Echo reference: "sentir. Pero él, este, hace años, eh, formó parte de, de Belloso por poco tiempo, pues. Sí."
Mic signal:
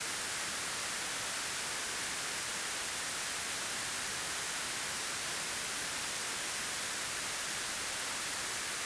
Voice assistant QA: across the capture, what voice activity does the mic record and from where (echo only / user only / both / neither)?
neither